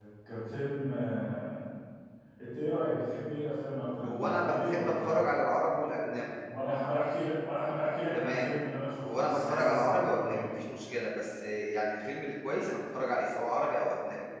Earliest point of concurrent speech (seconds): 4.0 s

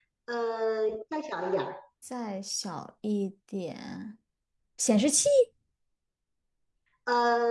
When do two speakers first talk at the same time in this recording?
none

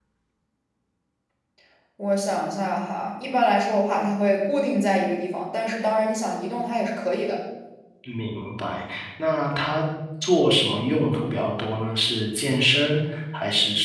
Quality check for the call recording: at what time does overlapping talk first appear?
none

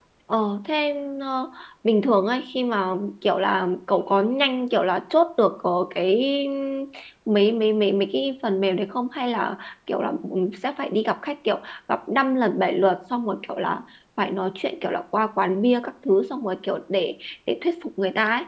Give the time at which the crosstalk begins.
none

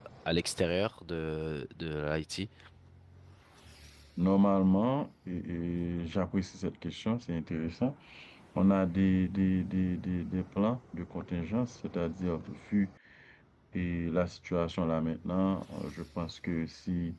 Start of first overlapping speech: none

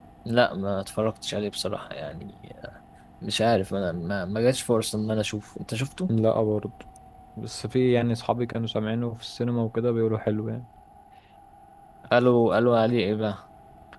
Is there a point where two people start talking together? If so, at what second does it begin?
none

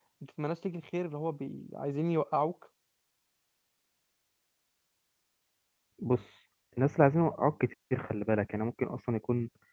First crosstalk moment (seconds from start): none

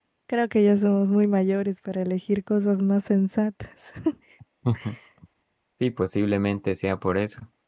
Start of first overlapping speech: none

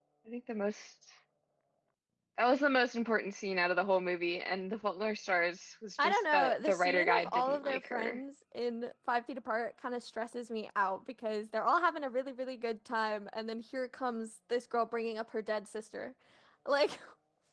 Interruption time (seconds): 6.0 s

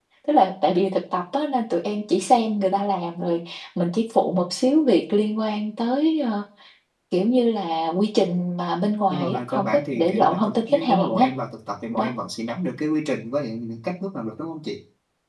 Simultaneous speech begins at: 9.1 s

